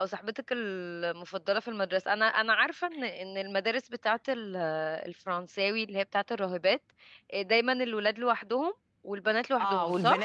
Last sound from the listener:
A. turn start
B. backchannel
A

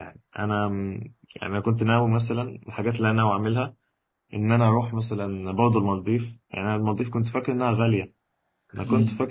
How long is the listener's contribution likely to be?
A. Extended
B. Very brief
B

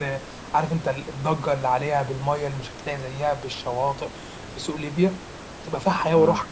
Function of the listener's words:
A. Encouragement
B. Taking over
A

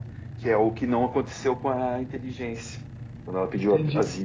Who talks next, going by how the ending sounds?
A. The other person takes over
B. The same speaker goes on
A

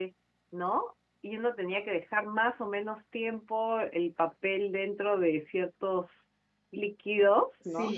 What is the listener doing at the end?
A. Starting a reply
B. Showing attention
A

